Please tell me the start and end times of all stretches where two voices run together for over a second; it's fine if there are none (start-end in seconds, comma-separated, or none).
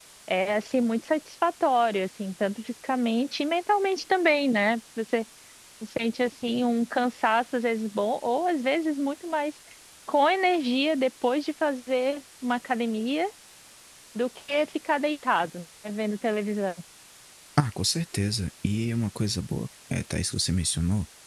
none